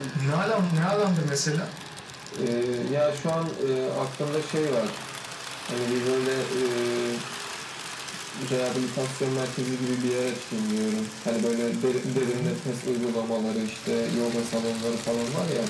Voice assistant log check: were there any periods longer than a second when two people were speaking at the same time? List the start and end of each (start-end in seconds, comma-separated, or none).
none